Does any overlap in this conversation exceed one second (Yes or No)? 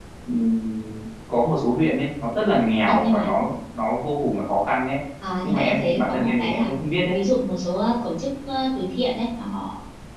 Yes